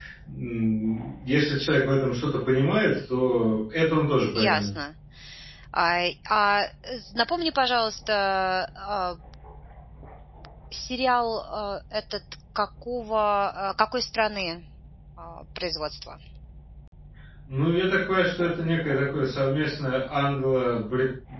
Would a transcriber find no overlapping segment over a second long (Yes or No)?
Yes